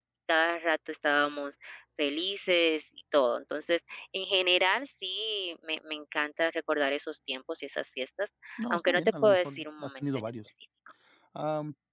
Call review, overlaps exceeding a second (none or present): present